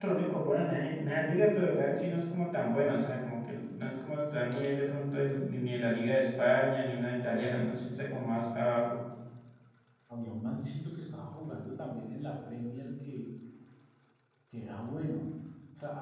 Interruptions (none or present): none